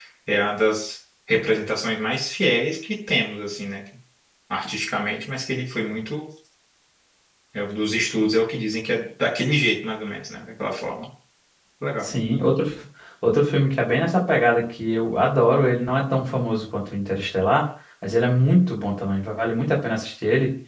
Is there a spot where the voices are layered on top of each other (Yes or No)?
No